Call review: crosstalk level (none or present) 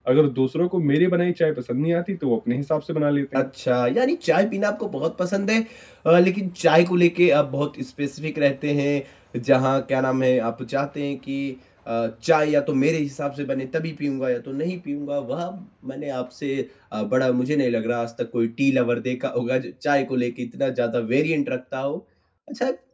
none